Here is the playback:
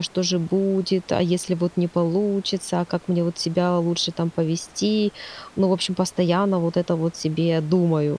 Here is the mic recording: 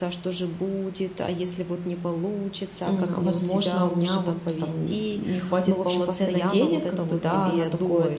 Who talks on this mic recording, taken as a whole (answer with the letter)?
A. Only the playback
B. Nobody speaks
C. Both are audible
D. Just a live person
C